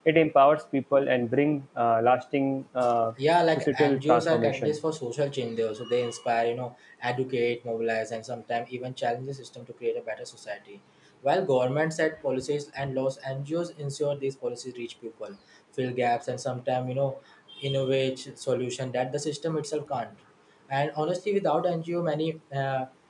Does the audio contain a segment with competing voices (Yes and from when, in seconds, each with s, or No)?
Yes, from 3.6 s